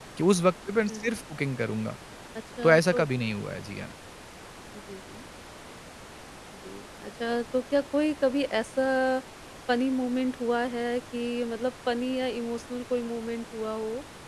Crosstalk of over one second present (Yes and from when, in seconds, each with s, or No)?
No